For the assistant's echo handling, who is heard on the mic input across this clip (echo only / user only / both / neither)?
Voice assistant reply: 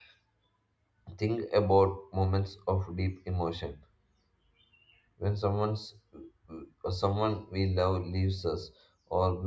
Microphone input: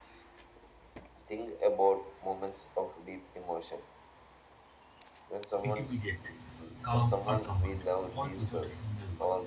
both